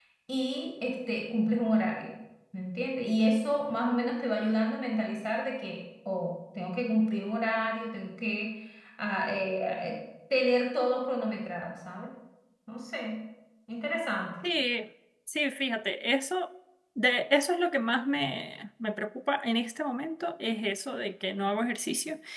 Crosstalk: none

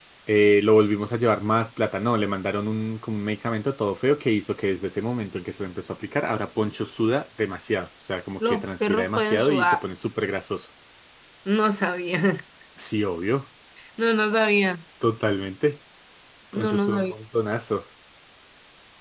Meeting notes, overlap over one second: present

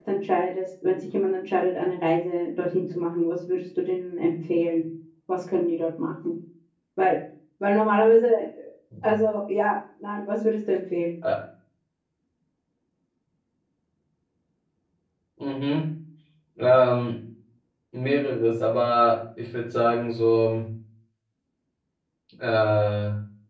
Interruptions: none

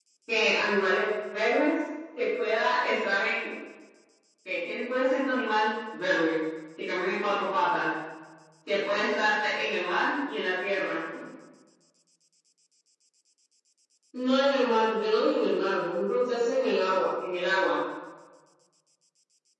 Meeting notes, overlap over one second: none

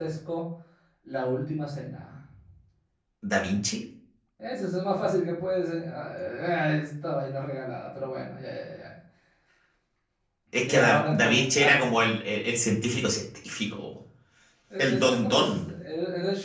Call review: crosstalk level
present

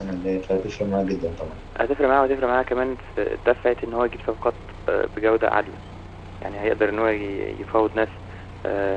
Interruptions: none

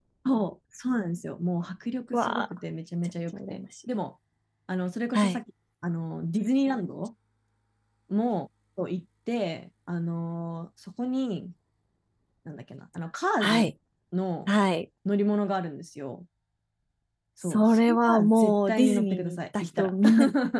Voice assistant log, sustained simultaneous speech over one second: present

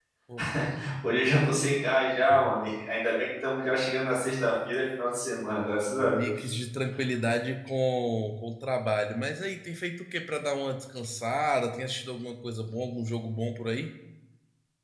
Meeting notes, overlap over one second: none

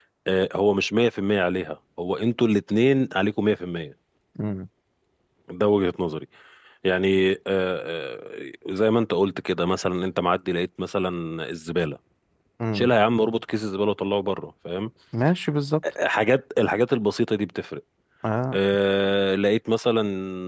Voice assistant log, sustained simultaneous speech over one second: none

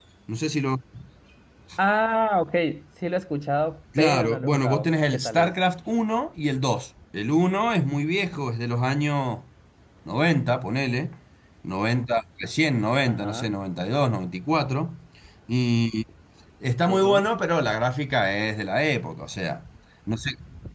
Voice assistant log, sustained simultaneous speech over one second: present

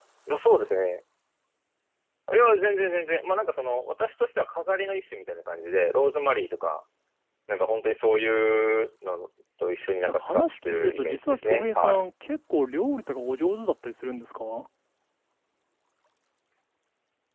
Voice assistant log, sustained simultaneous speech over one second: present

